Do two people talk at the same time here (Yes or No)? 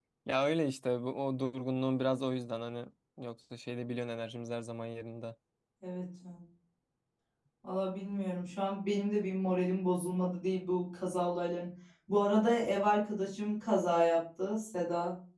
No